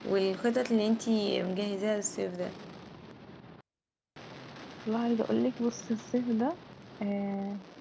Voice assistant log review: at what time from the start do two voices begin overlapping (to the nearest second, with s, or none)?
none